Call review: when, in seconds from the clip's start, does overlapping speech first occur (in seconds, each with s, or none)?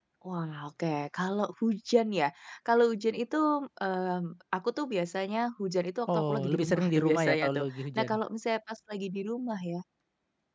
6.1 s